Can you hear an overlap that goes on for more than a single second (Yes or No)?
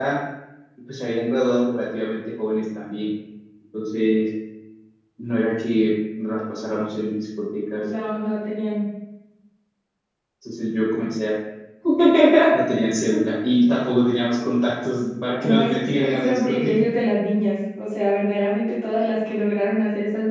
Yes